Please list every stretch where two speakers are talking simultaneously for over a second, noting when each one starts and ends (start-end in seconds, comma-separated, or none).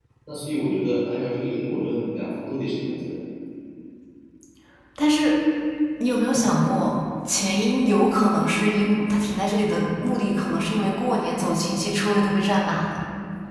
none